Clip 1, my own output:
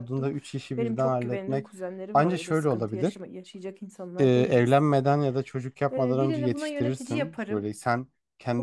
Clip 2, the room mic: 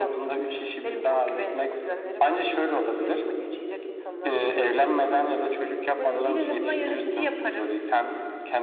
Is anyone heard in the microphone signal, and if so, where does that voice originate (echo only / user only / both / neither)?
both